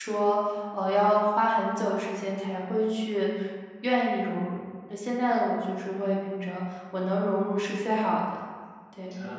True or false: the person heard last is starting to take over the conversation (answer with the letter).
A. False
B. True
B